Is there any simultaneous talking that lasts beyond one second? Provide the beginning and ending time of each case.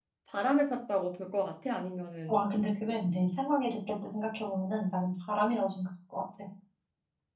none

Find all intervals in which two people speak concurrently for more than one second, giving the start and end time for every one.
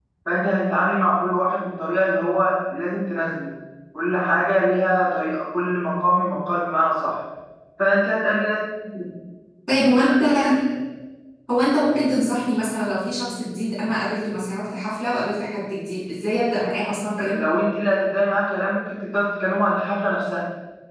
none

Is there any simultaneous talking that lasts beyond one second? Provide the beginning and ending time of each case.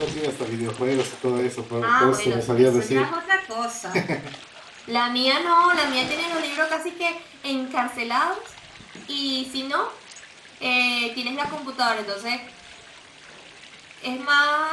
1.8-3.1

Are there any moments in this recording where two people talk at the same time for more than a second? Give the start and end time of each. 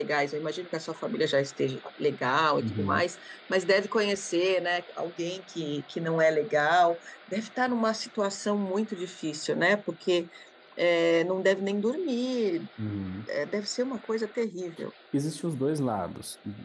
none

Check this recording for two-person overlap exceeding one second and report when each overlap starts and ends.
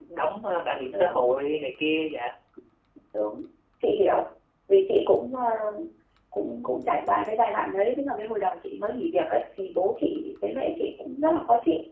none

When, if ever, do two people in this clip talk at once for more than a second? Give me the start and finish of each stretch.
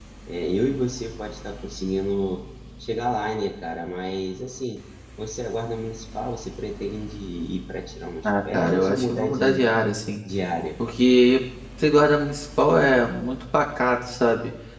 8.2-9.6

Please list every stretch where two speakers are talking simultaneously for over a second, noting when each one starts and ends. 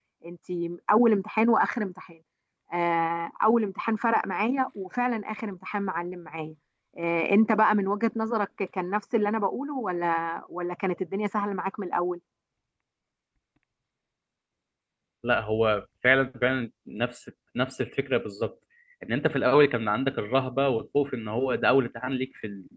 none

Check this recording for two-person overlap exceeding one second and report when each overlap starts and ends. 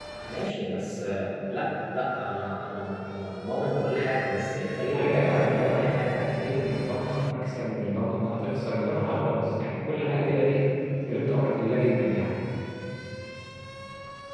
4.9-6.2

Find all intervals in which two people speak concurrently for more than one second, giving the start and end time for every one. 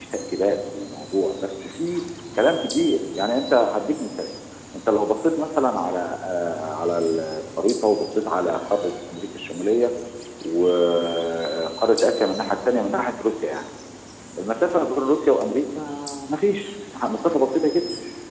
none

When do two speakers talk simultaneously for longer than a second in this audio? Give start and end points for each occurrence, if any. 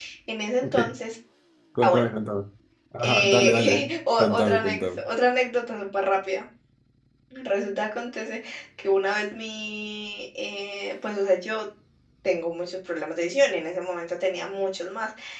3.0-5.0

